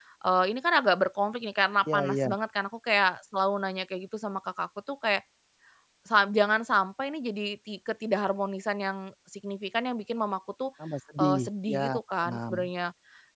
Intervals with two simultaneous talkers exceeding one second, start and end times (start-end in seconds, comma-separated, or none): 11.2-12.5